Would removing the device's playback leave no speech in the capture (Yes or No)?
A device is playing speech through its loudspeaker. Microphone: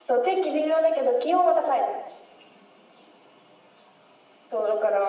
Yes